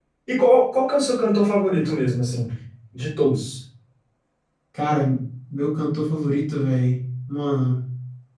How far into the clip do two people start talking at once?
none

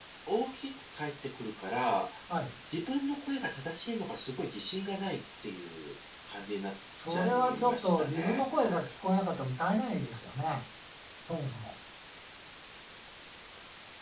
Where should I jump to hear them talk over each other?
7.0 s

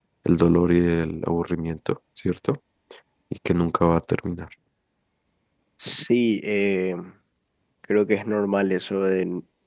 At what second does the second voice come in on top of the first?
none

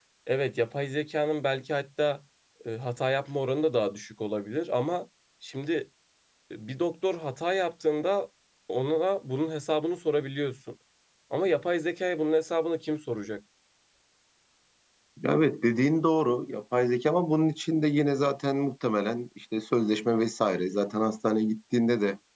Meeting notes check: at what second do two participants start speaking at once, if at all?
none

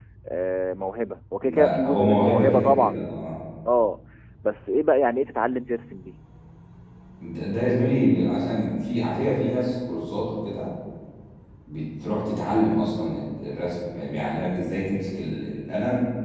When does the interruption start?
1.4 s

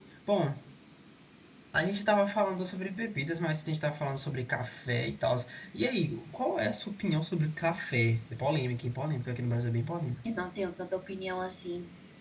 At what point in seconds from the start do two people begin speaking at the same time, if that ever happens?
none

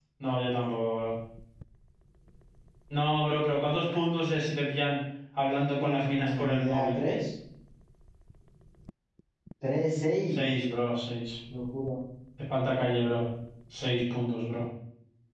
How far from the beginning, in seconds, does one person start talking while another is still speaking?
5.8 s

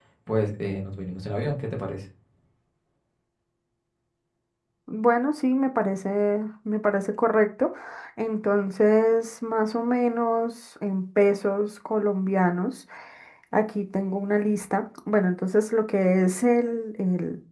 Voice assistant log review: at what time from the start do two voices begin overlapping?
none

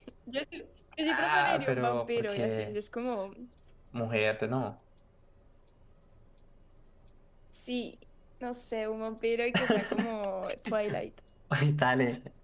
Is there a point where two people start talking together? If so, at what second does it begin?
1.1 s

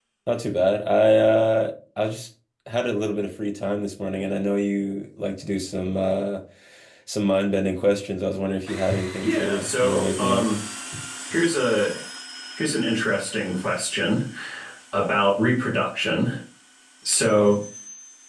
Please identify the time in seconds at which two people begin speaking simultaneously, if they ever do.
9.2 s

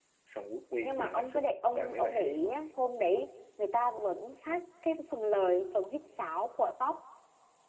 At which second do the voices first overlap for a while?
0.8 s

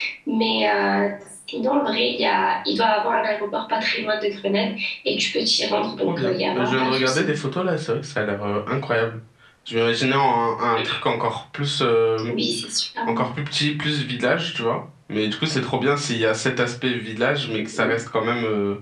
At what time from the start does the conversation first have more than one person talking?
6.1 s

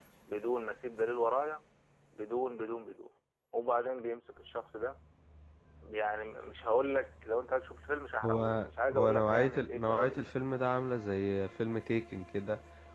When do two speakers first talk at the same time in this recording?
8.2 s

